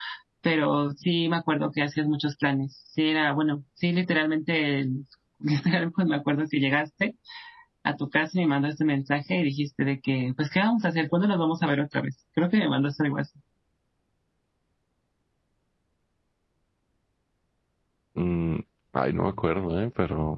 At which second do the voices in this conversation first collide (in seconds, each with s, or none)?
none